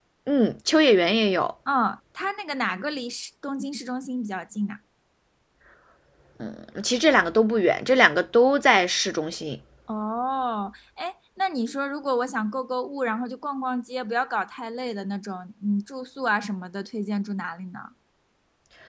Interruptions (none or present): none